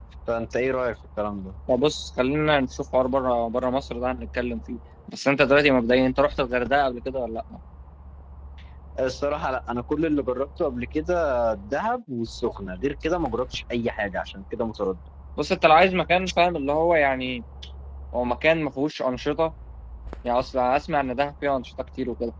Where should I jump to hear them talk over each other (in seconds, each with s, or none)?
none